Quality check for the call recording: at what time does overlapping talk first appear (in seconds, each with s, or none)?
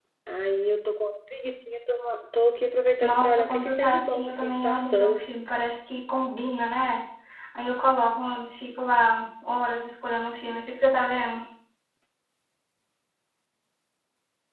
3.0 s